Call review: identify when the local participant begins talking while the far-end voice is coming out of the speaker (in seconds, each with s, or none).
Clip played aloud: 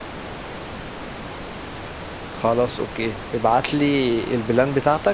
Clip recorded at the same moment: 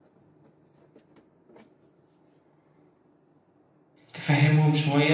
4.1 s